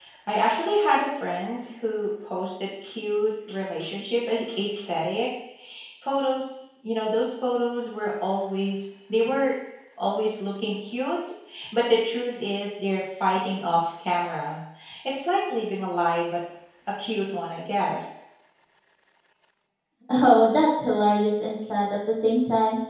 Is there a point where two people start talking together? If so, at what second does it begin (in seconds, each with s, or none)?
none